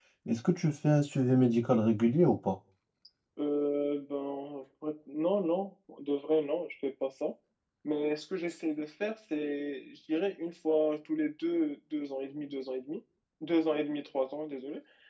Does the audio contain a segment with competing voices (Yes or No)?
No